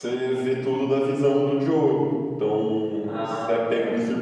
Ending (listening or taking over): listening